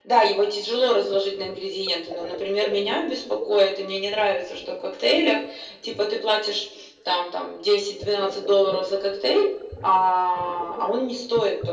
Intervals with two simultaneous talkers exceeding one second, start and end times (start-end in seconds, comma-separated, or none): none